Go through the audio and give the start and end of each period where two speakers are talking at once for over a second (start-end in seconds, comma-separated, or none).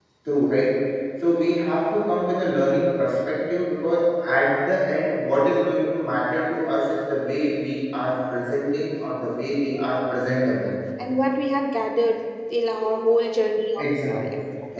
none